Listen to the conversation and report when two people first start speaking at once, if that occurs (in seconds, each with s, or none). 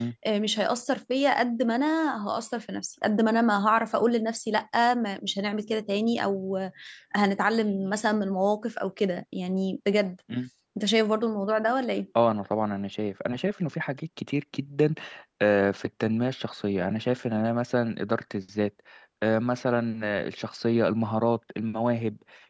none